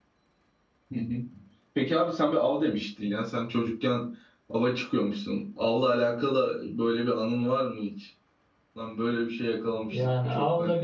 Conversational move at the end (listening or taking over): taking over